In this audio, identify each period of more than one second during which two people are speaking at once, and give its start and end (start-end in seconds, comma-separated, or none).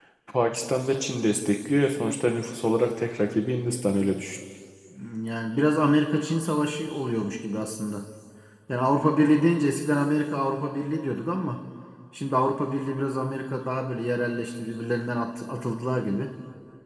none